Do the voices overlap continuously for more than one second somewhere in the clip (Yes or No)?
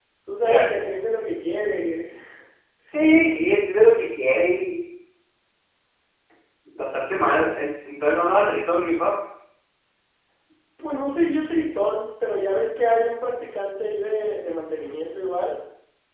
No